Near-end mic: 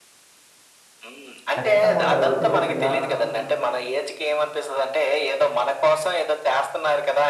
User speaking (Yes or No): Yes